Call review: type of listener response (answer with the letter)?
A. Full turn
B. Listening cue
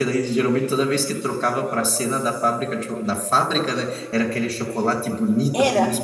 B